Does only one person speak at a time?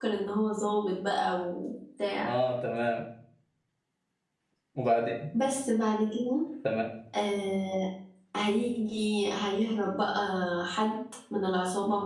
Yes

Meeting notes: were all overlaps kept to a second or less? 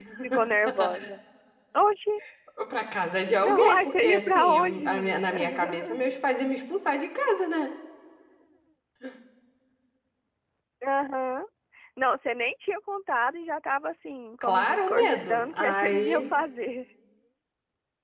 No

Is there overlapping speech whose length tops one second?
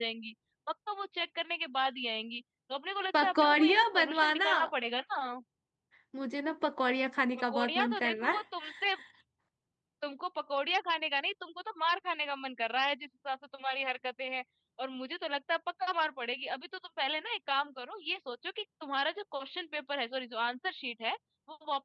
Yes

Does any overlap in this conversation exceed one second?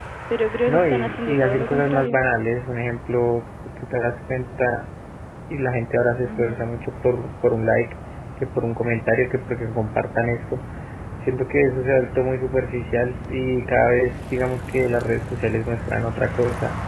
Yes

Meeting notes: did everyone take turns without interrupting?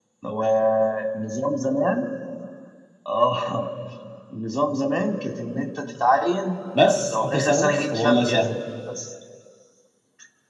No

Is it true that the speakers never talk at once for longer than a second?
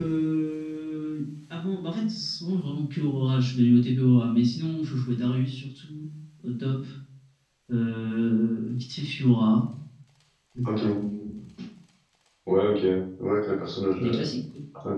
Yes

